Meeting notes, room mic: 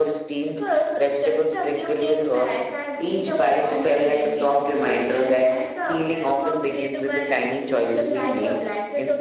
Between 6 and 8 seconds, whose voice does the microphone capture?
echo only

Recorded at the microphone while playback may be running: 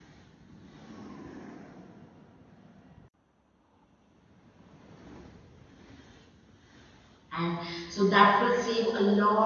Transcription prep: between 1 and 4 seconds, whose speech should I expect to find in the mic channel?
neither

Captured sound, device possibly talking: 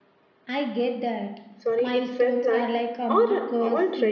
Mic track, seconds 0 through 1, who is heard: echo only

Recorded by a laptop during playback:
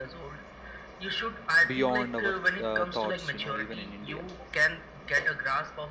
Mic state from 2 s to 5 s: both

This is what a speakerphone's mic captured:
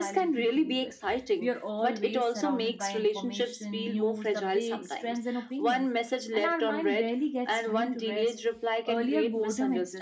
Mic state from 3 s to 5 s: both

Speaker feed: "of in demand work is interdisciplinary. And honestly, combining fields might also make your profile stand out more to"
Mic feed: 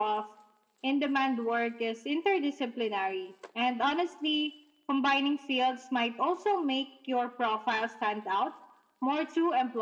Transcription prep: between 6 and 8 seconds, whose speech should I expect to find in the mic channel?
echo only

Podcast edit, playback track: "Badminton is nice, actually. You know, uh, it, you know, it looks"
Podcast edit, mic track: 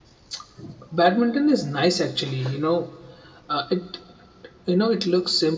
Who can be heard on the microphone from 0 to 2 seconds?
echo only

